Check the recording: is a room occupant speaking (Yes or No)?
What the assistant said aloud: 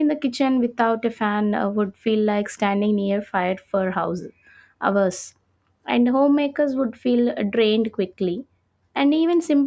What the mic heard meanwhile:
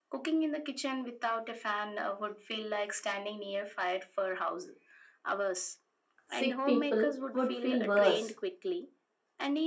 Yes